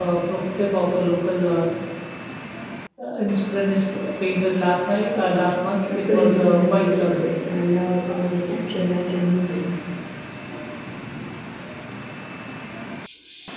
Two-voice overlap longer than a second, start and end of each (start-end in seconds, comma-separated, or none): 5.9-7.3